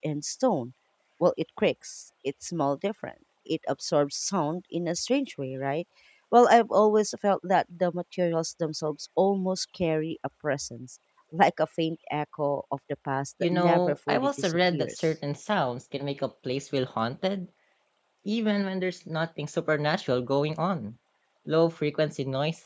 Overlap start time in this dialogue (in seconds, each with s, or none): 13.4 s